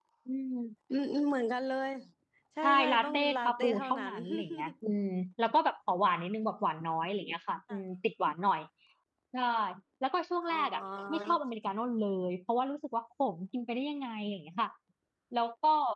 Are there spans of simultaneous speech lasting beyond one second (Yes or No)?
Yes